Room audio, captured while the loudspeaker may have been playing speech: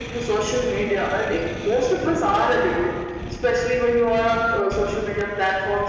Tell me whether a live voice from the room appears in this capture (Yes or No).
No